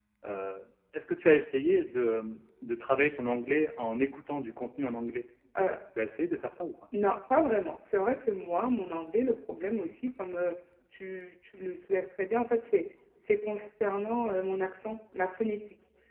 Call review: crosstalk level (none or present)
none